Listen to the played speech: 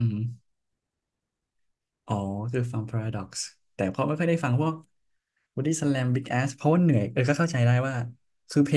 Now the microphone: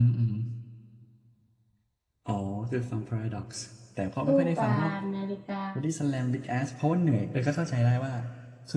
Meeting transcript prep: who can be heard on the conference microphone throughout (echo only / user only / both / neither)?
both